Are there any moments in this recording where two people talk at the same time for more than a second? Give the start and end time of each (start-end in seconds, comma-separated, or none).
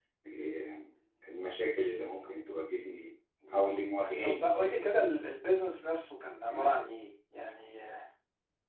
3.5-5.2